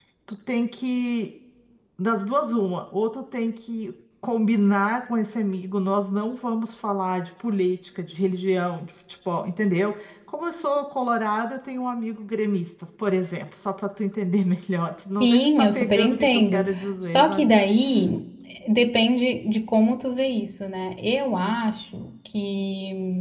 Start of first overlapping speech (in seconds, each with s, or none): 15.2 s